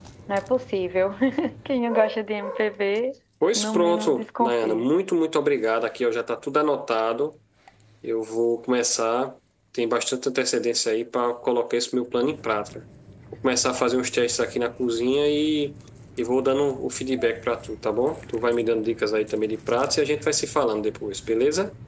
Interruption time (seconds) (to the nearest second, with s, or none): 4 s